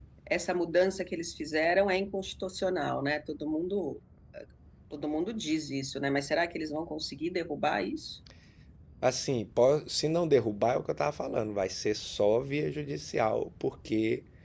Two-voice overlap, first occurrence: none

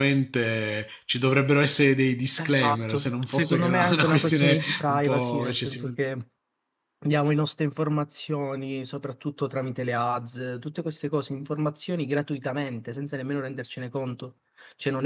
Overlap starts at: 2.4 s

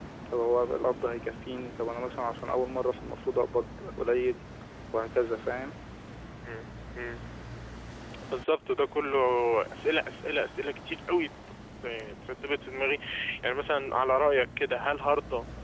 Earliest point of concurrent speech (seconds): none

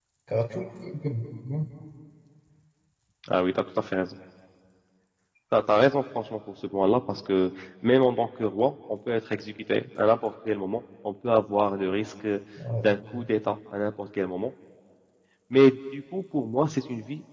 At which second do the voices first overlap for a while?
none

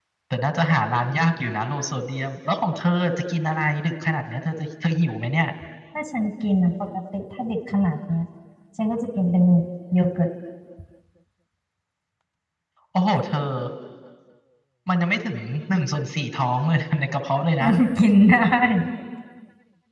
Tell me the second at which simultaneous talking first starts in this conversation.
none

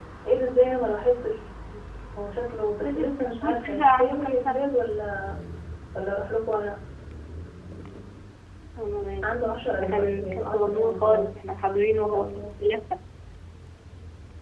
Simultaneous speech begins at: 2.8 s

